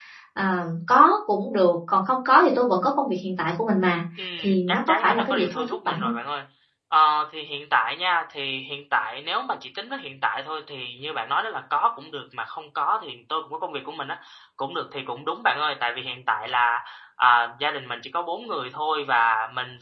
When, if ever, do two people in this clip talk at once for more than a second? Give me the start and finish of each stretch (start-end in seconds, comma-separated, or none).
4.4-6.1